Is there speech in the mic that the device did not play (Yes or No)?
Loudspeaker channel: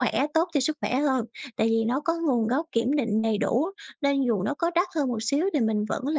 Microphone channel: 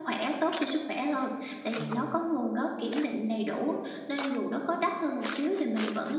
Yes